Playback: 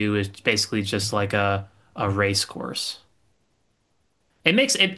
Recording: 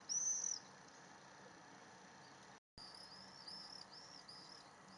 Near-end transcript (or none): none